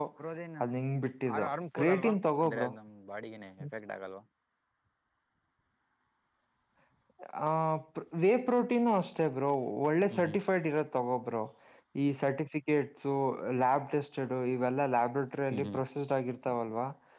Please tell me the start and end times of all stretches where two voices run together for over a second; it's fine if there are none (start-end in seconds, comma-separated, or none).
1.3-2.7